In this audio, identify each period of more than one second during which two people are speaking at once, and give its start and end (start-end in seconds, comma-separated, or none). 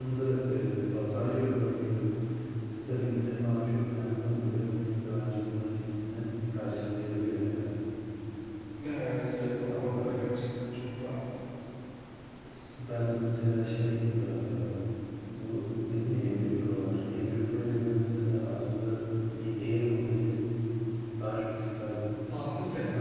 none